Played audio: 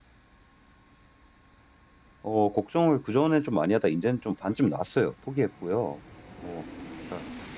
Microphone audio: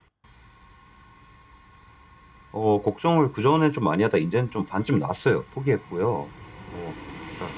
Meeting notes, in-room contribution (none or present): none